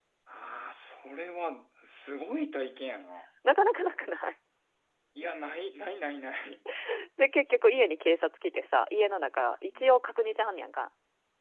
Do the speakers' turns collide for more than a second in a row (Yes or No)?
No